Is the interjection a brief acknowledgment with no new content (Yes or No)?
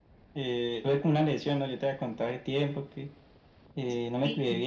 Yes